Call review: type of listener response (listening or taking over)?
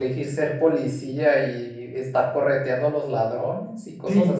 taking over